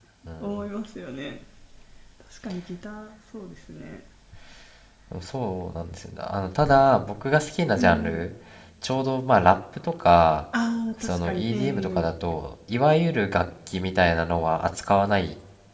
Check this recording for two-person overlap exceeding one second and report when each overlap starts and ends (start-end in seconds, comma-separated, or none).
11.0-12.3